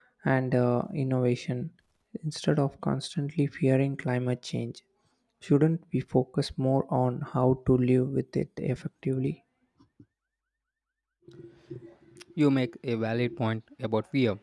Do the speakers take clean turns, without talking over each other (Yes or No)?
Yes